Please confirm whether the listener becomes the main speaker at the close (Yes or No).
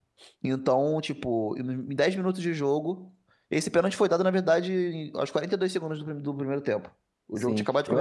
Yes